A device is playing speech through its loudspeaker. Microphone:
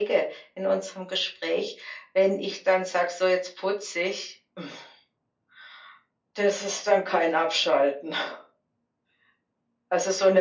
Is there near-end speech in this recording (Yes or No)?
No